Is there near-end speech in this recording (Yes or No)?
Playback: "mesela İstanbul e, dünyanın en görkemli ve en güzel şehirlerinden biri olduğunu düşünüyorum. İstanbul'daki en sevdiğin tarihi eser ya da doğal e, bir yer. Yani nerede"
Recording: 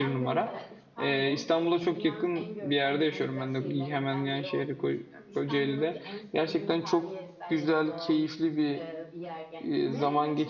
Yes